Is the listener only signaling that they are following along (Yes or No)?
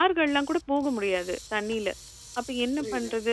Yes